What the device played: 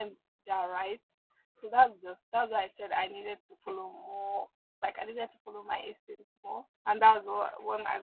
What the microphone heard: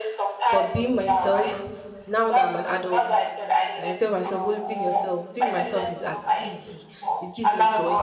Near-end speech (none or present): present